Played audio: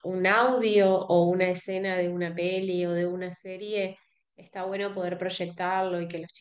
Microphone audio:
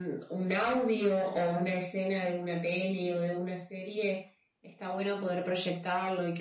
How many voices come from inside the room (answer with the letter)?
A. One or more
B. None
B